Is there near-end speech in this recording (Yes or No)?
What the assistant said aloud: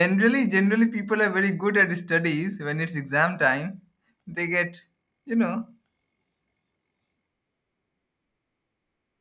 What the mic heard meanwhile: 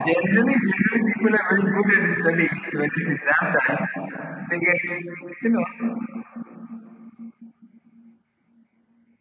No